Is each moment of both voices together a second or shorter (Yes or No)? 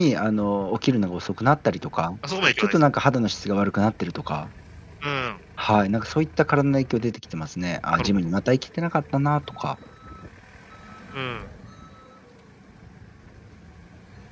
Yes